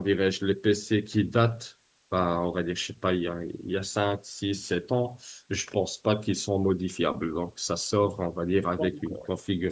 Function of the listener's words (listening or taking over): listening